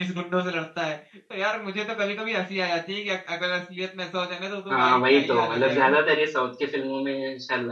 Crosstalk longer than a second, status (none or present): present